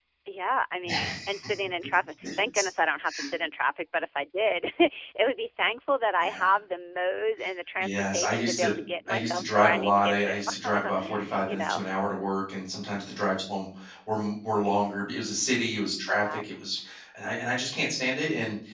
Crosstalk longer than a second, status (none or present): present